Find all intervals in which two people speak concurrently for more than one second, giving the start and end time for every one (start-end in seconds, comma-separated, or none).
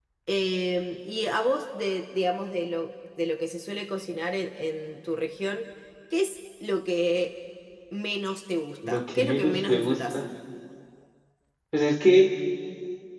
8.9-10.2